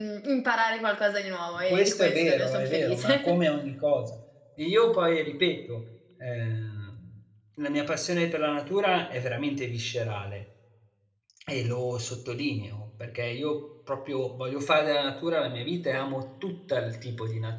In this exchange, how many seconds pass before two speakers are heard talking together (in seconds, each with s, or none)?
1.6 s